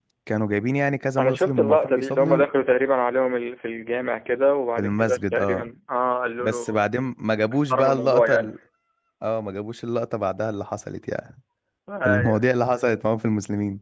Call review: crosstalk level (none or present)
present